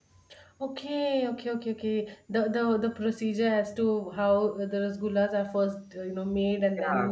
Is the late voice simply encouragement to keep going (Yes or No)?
No